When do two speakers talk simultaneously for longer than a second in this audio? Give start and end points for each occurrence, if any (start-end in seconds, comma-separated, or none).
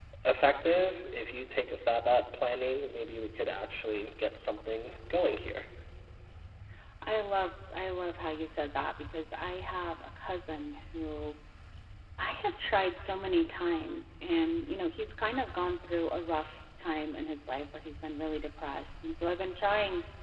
none